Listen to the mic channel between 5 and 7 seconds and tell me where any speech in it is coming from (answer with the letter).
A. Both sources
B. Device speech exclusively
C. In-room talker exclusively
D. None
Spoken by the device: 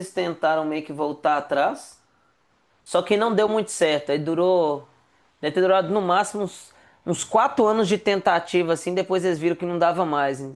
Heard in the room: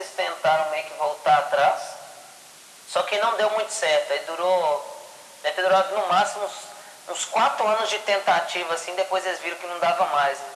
B